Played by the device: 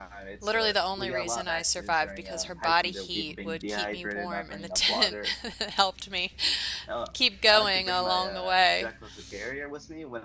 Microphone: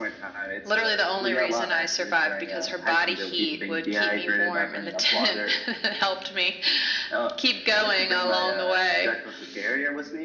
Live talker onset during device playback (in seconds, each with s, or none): none